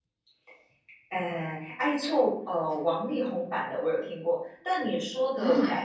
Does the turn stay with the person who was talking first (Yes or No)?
Yes